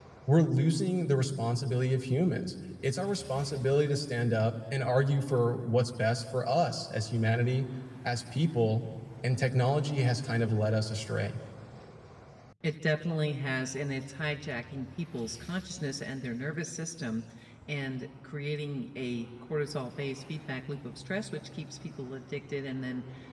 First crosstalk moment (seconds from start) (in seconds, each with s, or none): none